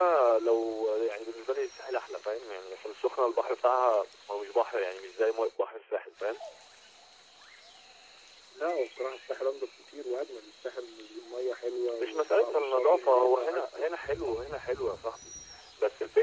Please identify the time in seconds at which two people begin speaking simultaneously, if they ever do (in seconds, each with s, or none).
12.0 s